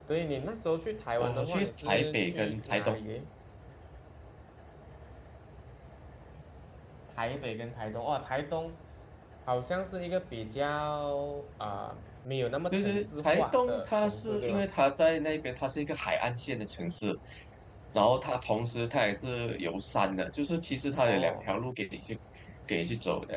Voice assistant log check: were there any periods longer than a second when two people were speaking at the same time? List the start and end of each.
1.2-3.0, 12.7-14.7

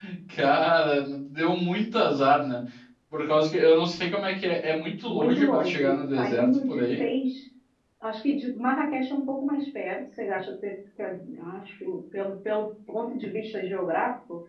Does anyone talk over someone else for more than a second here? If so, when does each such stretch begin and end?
5.0-7.0

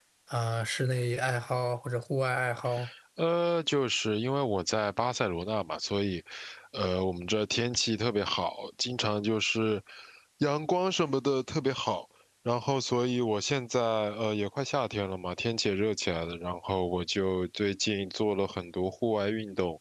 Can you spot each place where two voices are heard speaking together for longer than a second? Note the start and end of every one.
none

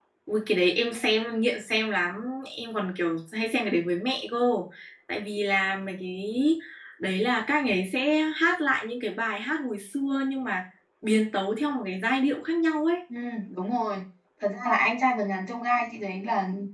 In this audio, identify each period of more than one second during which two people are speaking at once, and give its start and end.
none

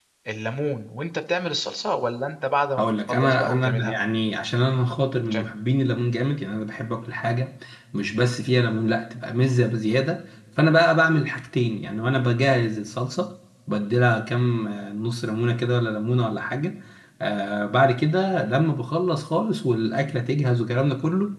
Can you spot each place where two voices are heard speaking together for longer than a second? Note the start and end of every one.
2.8-4.0

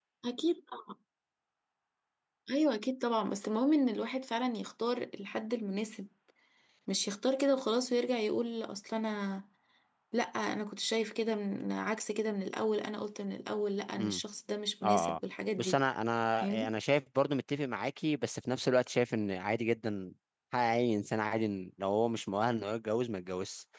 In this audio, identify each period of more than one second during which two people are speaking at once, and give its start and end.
none

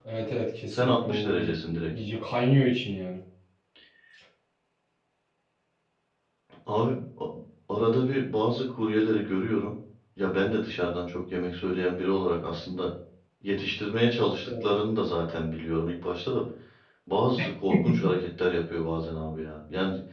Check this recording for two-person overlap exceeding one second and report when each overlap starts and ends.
0.7-1.9

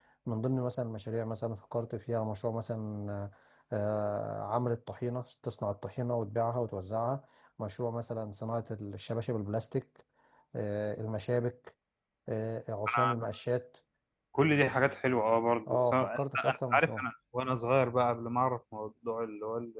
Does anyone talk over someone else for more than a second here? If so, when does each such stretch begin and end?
15.7-17.0

